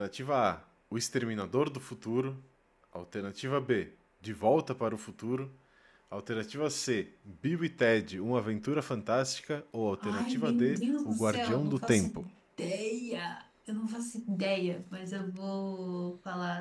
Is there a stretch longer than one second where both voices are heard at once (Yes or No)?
Yes